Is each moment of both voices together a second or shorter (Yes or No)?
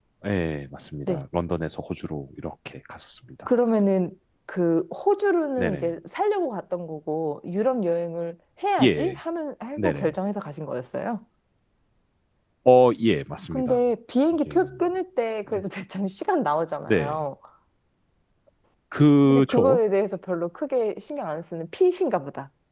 Yes